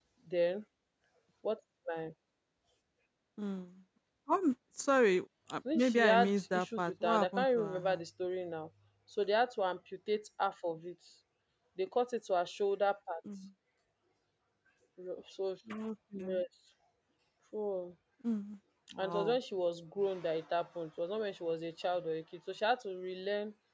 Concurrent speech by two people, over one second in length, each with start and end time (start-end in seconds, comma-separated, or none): 5.7-8.0